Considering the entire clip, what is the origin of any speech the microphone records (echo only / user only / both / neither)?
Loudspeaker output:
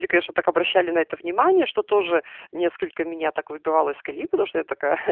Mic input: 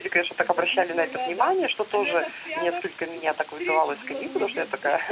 both